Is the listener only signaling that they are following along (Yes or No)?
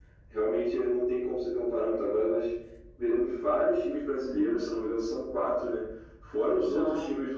Yes